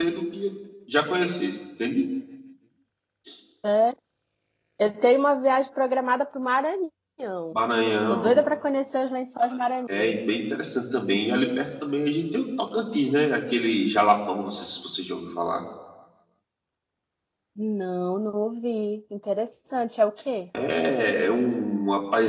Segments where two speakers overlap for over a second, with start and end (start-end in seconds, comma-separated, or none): none